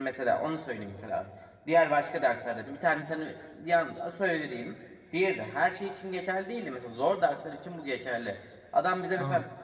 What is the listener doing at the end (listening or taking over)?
listening